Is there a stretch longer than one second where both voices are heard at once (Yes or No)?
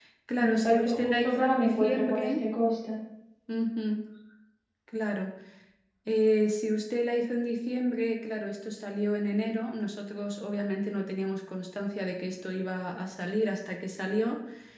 Yes